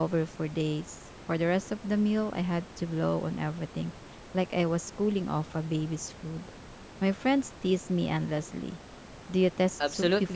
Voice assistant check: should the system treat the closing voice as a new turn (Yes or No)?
Yes